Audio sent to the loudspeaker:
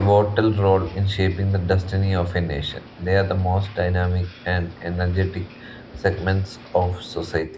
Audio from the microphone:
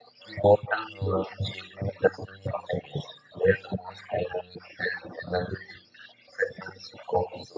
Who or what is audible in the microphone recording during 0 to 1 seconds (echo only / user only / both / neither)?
echo only